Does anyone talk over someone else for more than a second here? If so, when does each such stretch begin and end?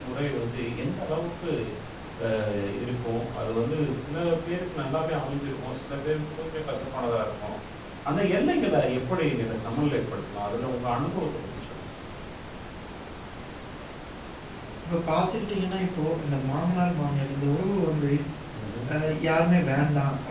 none

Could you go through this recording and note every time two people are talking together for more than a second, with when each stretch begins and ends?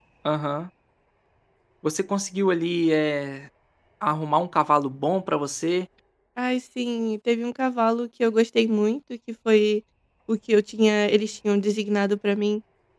none

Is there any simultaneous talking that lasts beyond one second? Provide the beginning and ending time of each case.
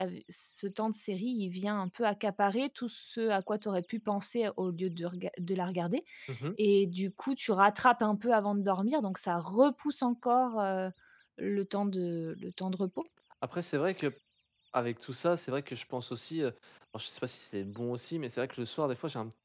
none

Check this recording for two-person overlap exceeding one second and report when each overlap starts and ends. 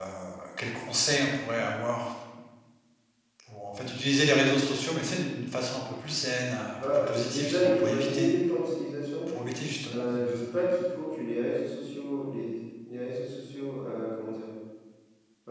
6.8-8.3

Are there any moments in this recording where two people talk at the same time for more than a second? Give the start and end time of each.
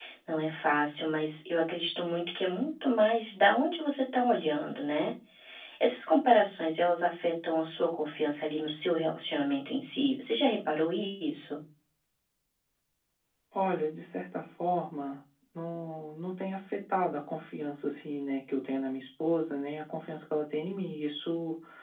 none

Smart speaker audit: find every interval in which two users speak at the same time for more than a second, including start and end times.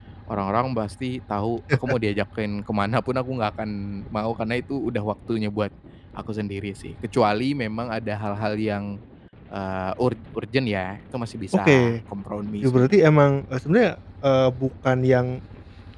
none

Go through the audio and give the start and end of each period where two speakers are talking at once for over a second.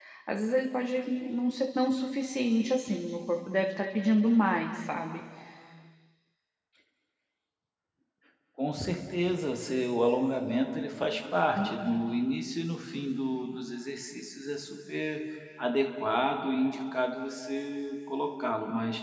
none

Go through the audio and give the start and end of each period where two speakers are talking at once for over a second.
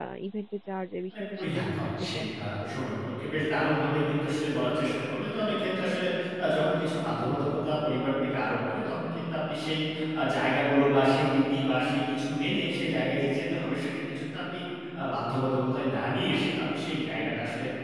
1.1-2.8

